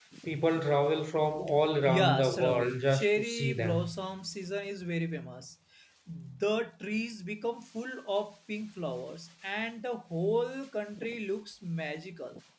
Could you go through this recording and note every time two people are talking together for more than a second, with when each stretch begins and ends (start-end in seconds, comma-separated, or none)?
1.8-3.9